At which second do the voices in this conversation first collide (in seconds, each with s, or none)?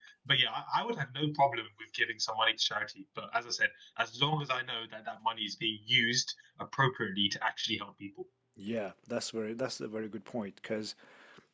none